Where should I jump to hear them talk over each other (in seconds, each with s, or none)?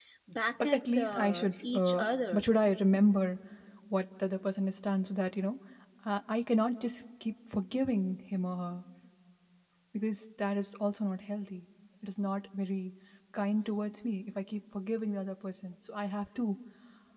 0.6 s